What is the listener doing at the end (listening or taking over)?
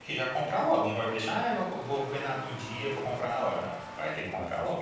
taking over